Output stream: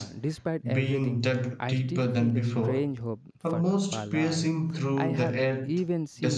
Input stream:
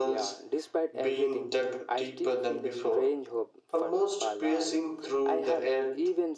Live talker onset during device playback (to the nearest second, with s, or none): none